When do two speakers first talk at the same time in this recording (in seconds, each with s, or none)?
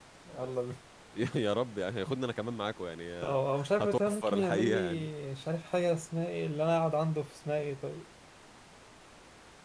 3.8 s